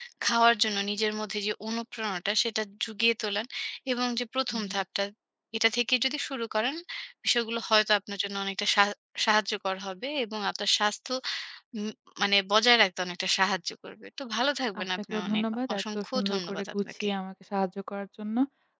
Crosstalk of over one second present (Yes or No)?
Yes